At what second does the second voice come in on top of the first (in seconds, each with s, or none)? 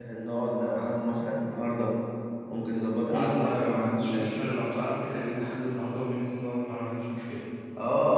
3.1 s